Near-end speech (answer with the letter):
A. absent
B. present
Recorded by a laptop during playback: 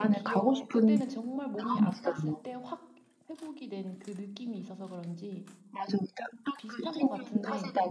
B